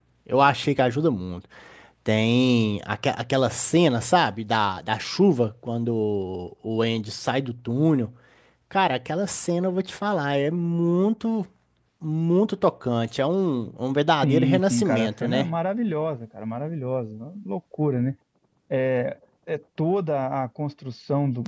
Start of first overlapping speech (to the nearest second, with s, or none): 14 s